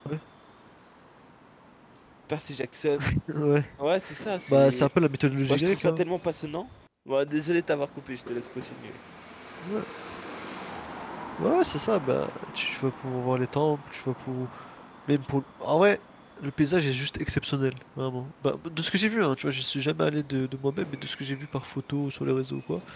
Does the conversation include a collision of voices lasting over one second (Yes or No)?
No